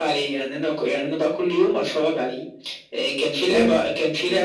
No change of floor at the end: Yes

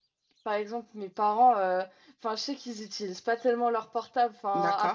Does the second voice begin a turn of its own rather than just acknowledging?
No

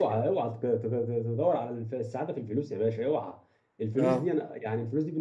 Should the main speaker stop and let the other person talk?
No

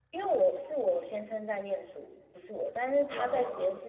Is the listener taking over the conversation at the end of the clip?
No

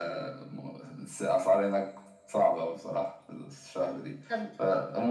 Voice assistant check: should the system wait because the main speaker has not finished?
Yes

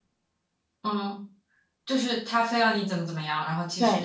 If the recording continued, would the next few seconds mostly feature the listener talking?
Yes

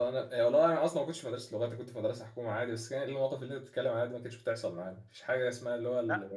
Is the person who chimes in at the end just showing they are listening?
Yes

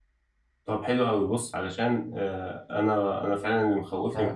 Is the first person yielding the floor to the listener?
No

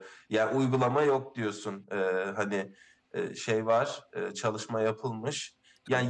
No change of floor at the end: Yes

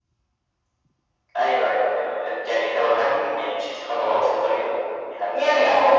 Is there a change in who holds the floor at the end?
Yes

